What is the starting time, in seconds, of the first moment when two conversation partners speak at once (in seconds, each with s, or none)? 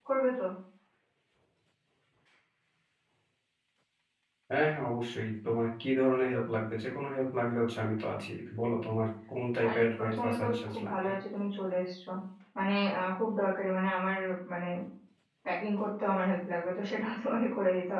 9.6 s